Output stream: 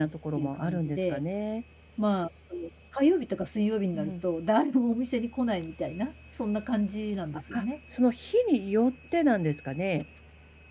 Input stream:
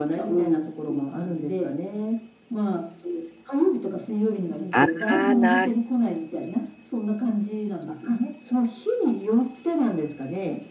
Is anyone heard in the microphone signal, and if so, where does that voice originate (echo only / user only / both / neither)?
both